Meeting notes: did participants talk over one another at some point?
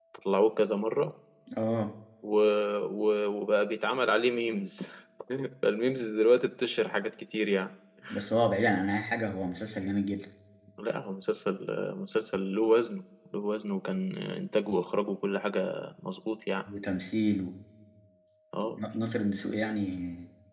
No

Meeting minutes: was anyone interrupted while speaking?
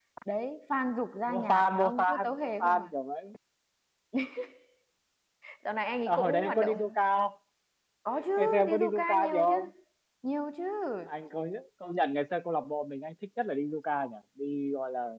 Yes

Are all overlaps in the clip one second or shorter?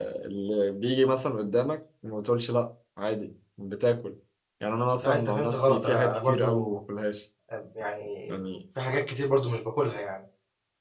No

